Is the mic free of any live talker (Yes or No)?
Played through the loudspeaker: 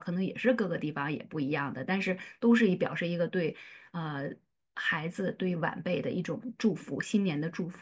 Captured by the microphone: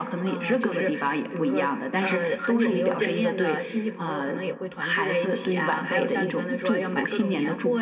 No